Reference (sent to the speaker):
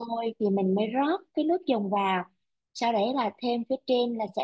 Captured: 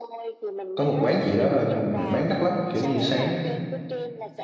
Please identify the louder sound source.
user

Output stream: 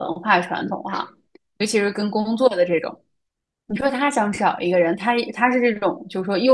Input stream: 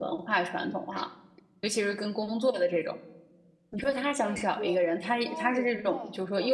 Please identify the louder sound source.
echo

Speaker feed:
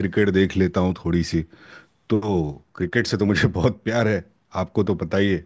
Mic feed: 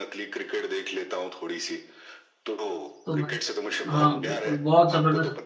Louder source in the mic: user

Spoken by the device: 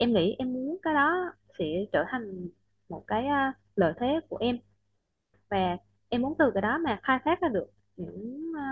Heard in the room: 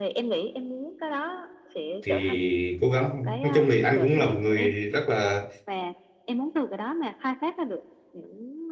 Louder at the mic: user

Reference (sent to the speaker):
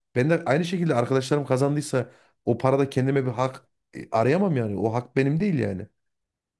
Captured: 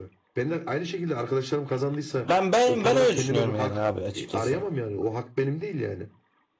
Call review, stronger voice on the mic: user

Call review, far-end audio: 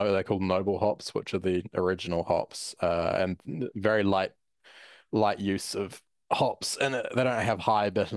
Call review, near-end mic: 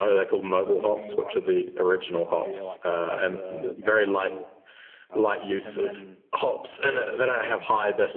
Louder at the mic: echo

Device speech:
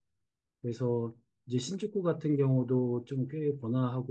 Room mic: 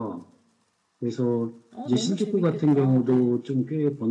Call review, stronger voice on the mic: echo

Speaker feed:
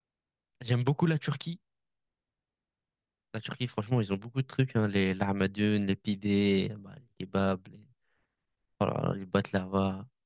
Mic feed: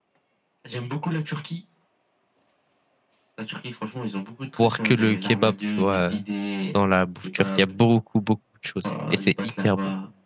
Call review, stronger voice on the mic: user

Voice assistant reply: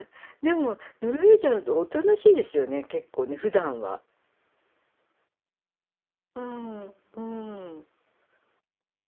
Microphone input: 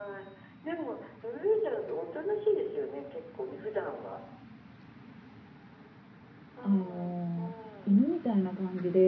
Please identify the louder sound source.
user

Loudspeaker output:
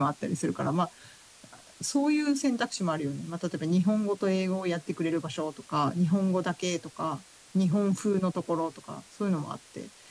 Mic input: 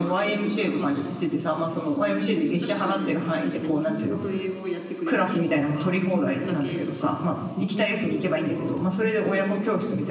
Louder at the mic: user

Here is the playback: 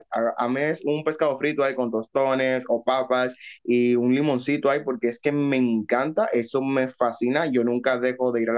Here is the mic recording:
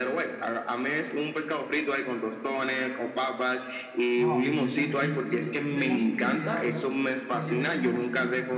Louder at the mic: echo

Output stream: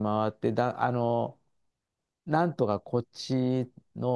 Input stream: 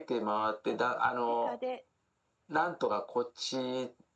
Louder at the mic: echo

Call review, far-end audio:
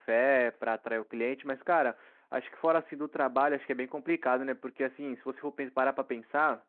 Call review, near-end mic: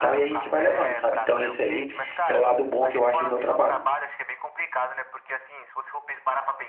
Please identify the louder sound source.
user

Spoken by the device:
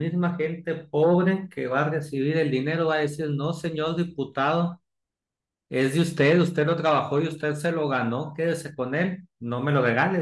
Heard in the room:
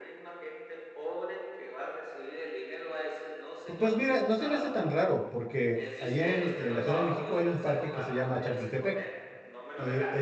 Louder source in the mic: user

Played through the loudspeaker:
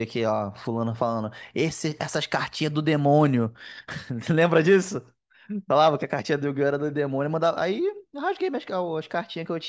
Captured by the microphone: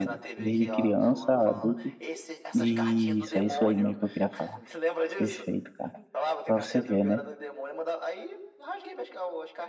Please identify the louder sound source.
user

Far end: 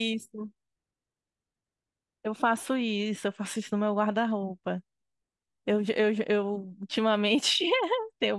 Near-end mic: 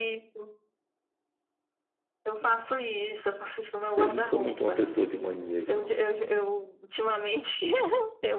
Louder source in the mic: user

